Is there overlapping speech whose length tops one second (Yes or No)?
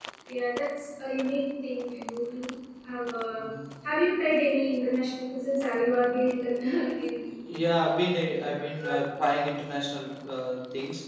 No